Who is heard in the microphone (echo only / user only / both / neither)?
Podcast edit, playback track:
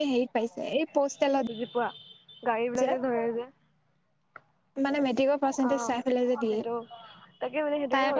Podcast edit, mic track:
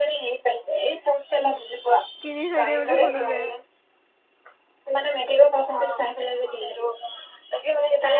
both